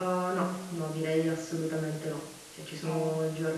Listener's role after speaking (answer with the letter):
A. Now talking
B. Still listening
B